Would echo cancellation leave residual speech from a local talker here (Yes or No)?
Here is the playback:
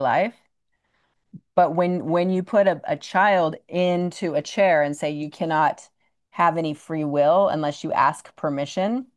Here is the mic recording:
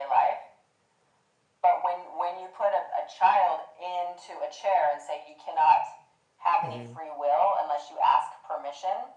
Yes